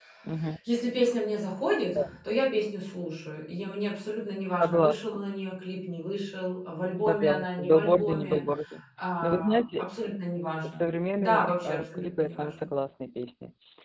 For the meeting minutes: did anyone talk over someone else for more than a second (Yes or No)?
Yes